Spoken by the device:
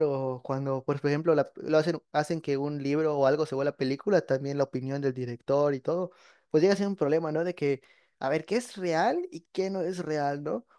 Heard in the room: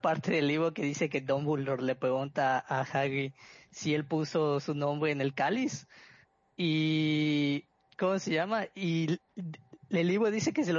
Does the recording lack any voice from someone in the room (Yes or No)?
No